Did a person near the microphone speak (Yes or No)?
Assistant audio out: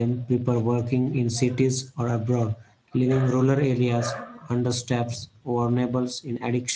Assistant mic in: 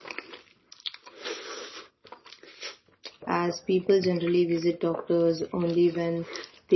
Yes